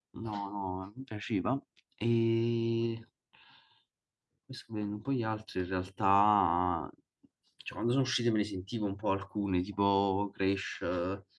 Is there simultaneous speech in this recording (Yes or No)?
No